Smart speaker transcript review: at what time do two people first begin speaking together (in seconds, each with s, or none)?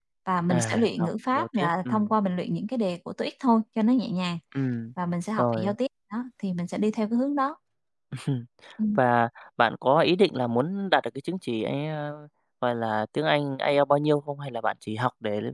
0.5 s